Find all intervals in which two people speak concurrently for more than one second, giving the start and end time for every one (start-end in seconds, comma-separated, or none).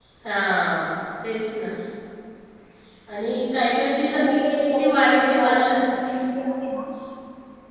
4.1-5.8